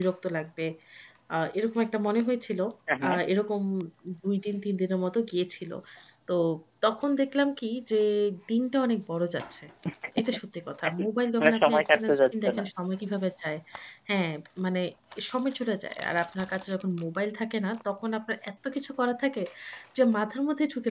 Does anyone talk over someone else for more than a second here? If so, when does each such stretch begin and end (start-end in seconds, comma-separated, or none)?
11.4-12.6